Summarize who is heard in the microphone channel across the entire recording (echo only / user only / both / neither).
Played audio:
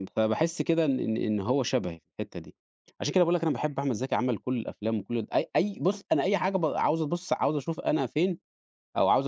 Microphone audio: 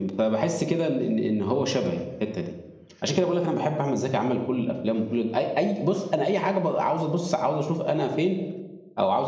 echo only